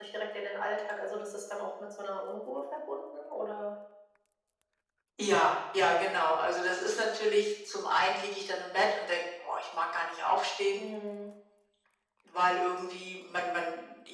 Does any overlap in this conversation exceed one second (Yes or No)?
No